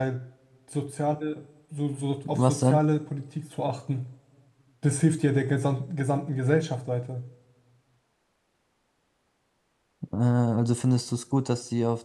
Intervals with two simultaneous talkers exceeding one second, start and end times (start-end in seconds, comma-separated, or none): none